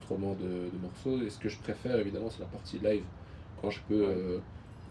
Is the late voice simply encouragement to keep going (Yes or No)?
Yes